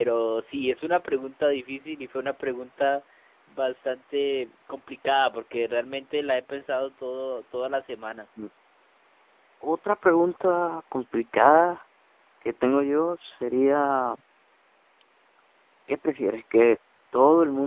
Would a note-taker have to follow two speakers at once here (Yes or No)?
No